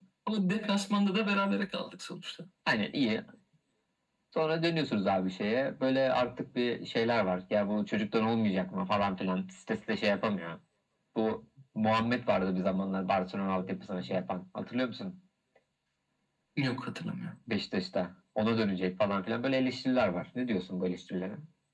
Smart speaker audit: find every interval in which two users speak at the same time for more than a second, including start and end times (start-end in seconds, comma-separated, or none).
none